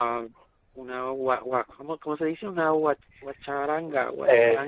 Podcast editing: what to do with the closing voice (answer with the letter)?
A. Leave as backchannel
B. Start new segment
B